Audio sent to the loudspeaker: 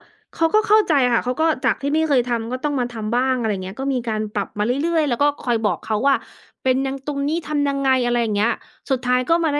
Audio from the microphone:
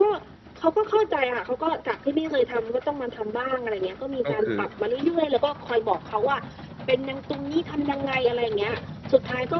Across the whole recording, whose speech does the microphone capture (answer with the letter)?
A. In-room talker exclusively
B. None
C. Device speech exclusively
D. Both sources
D